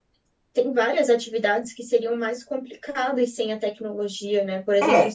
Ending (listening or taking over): listening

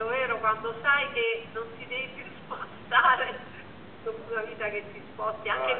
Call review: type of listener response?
listening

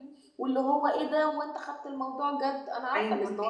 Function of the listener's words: taking over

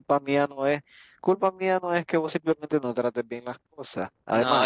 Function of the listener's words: taking over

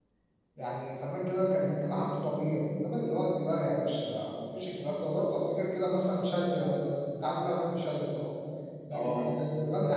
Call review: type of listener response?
listening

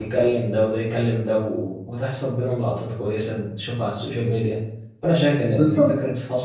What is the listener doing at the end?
listening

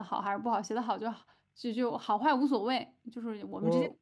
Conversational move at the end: listening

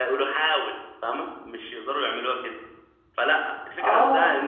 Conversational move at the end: listening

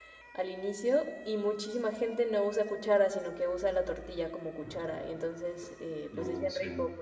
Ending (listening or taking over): listening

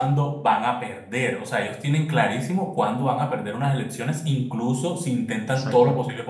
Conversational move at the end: listening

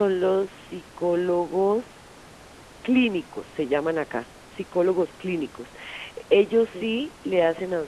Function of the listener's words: listening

